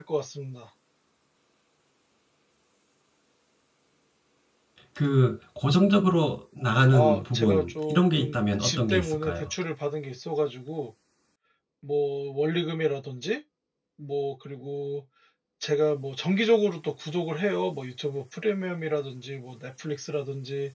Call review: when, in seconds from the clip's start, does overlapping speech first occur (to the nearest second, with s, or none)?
7 s